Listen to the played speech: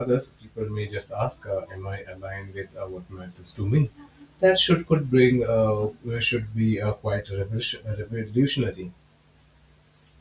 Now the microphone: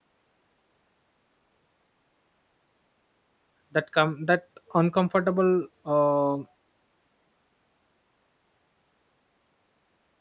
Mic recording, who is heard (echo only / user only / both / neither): user only